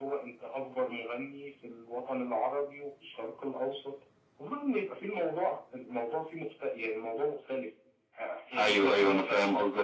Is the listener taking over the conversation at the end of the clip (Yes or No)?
Yes